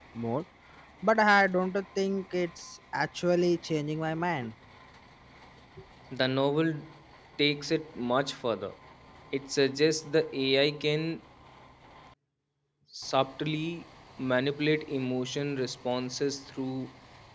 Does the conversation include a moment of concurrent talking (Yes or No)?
No